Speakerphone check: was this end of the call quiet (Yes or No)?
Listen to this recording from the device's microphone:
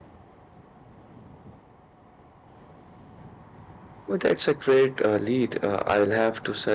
No